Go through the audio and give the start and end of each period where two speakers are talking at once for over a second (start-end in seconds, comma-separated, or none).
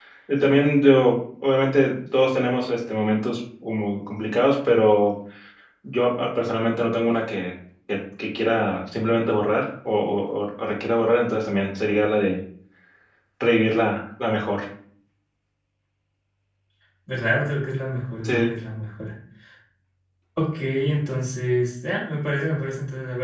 none